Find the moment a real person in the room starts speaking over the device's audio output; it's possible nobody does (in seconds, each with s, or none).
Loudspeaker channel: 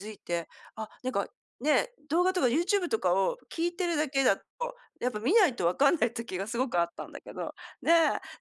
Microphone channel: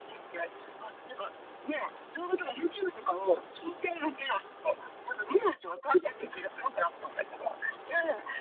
none